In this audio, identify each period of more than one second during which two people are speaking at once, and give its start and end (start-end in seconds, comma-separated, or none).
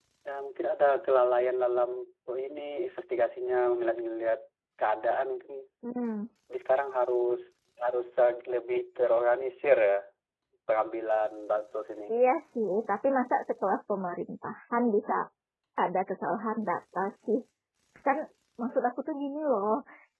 none